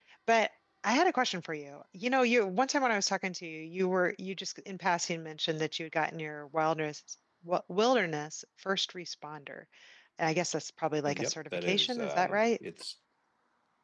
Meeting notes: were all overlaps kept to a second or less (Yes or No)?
No